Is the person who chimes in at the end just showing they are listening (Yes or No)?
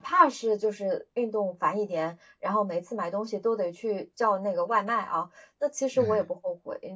Yes